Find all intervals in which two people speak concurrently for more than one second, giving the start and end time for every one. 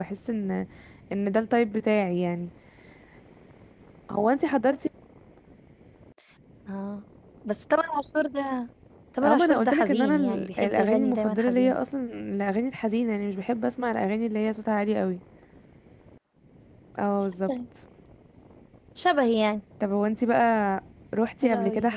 9.2-11.8

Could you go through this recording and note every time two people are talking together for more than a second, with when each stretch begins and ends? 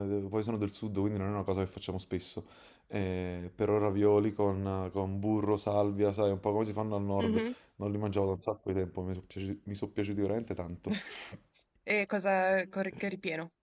none

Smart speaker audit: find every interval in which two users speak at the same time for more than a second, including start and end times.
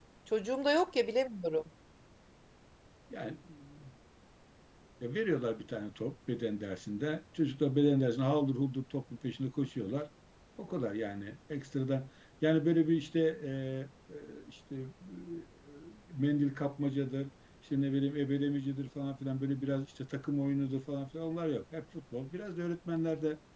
none

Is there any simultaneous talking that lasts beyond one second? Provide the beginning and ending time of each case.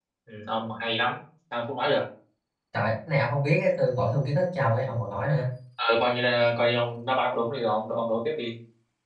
none

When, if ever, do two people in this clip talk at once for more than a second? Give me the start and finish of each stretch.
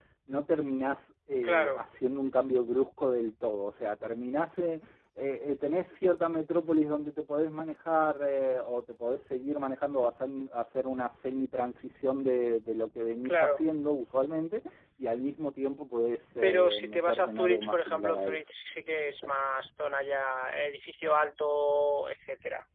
16.4-18.5

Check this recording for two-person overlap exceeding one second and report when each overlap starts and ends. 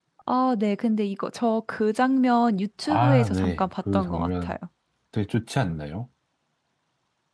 2.9-4.6

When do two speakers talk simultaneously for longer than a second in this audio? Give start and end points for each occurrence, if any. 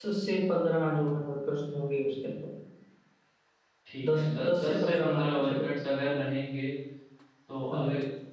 4.0-5.7

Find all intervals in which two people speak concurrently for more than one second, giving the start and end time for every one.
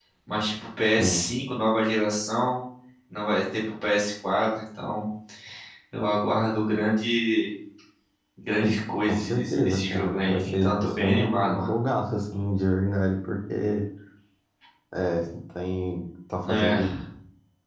9.0-11.7

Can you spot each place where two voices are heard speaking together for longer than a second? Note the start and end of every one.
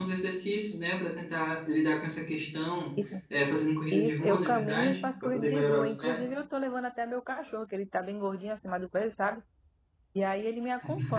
3.9-6.2

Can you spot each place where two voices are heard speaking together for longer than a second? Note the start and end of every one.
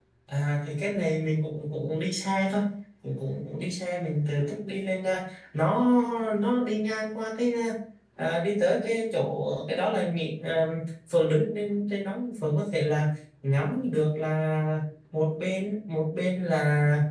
none

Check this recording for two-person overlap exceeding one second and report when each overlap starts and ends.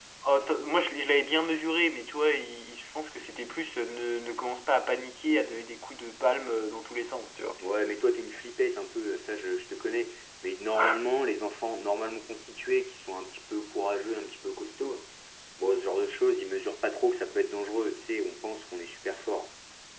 none

